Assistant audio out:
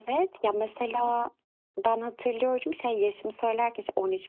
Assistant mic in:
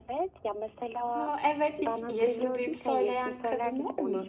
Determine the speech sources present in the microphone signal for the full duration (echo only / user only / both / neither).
both